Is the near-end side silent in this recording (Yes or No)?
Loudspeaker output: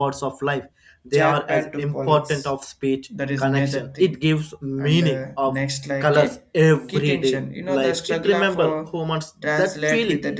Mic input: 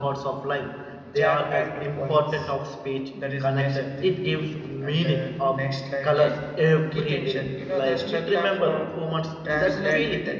No